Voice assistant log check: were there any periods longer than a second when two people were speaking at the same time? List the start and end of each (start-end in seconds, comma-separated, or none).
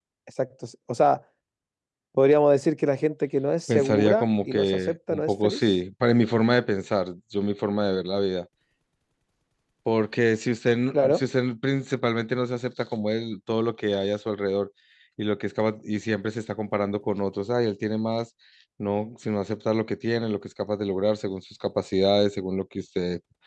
3.7-5.6